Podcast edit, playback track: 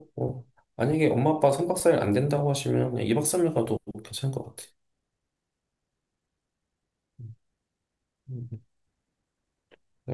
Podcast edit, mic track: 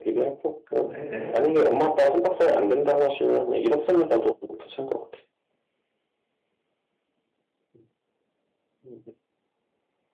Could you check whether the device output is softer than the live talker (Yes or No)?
No